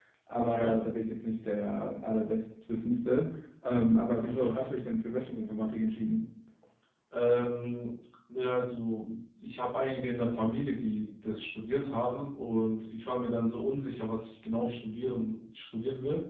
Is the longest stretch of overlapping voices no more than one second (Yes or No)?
Yes